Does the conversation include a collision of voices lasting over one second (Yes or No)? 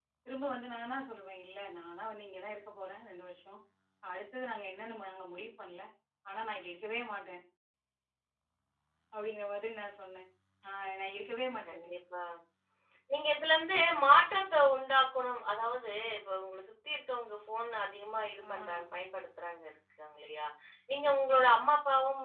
No